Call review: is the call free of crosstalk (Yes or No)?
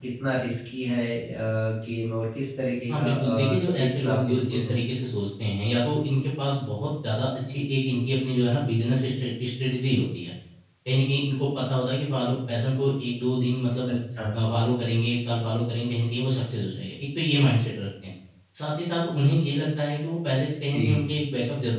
No